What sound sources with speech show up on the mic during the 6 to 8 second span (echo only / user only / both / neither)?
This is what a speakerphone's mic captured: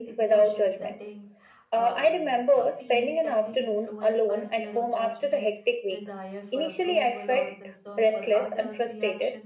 both